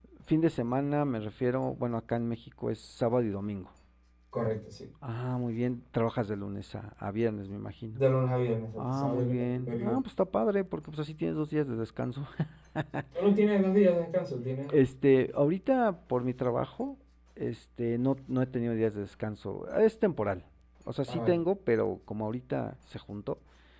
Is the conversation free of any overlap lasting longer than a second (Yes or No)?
No